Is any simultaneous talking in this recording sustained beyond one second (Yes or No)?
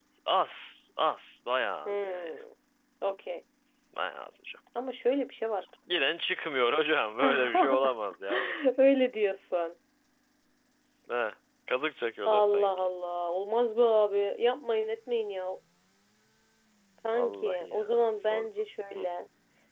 Yes